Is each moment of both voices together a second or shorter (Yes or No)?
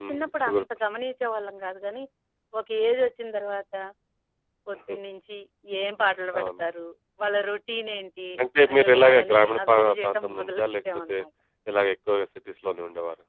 No